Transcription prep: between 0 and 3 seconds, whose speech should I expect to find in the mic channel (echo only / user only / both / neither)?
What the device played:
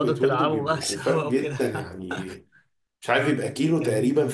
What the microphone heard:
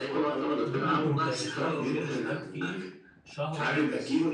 both